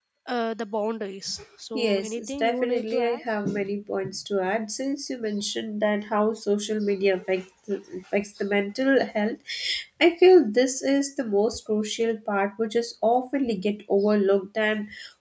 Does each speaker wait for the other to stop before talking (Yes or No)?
No